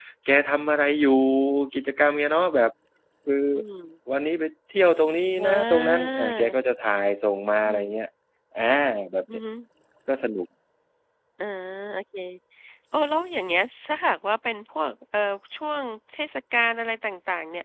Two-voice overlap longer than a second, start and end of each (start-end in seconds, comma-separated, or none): 5.3-6.5